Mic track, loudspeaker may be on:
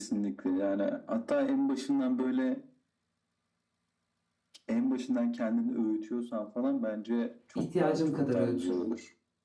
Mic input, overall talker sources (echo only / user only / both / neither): both